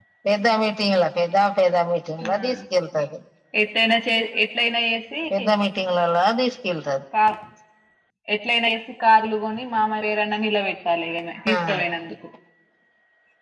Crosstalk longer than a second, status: none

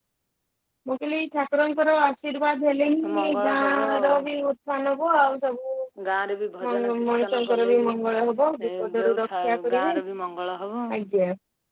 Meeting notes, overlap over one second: present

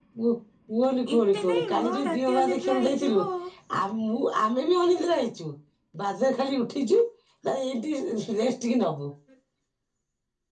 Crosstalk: present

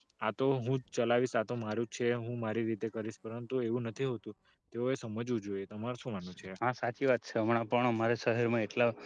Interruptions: none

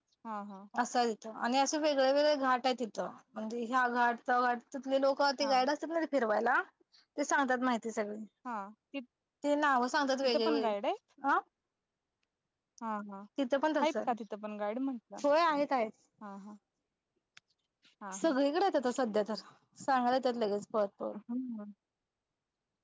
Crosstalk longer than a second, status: none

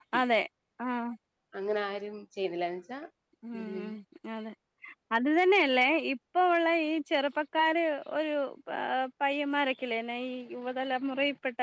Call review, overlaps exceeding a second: none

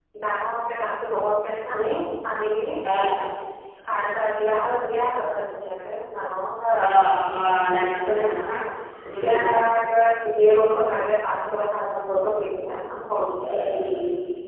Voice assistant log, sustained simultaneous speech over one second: none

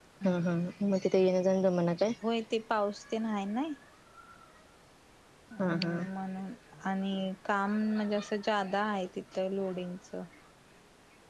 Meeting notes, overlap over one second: none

